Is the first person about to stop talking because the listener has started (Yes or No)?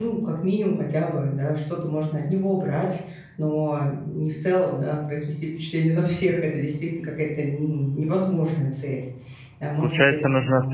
Yes